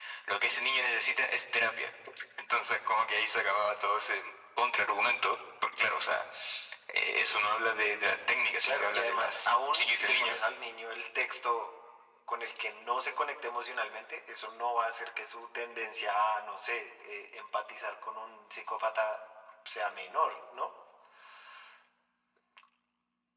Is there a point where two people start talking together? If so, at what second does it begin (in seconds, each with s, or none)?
8.6 s